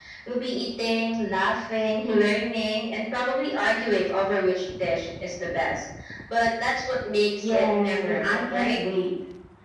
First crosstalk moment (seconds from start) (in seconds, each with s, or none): 7.4 s